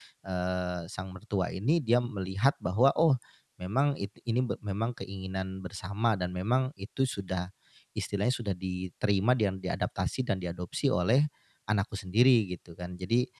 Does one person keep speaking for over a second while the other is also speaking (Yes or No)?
No